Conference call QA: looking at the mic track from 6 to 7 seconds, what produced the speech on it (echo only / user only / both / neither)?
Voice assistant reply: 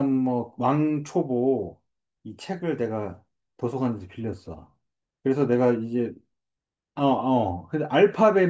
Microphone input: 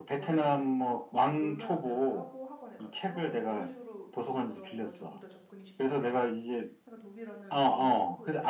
both